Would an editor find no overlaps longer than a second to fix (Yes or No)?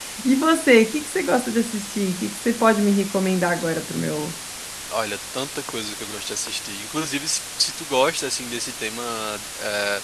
Yes